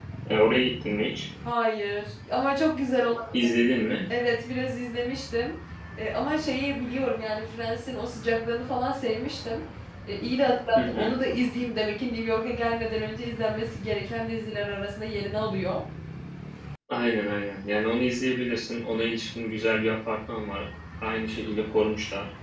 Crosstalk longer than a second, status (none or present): none